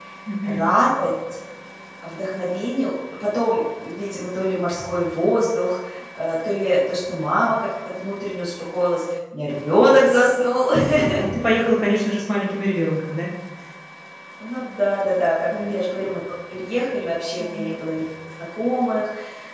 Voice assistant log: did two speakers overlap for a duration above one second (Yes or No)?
No